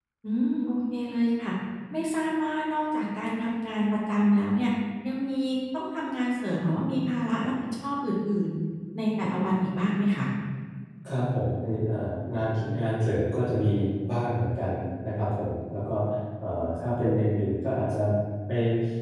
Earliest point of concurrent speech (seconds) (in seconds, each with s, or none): none